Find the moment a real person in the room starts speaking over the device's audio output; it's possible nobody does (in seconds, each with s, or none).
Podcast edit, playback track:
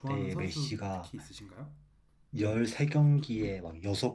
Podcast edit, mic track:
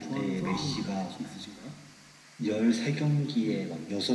0.4 s